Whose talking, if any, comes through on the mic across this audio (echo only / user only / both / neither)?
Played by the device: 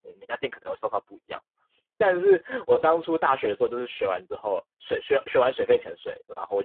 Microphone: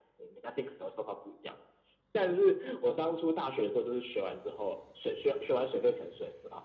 echo only